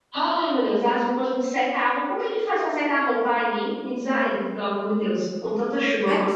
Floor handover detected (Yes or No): Yes